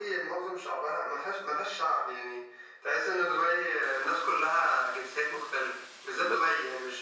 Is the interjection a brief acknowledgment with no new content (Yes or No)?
Yes